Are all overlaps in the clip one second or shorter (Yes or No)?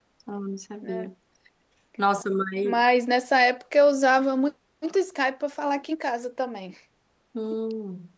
Yes